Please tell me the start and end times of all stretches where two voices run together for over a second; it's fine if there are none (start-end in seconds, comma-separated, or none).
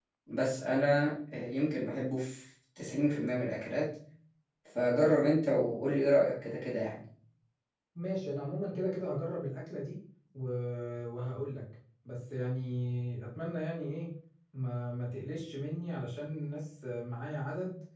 none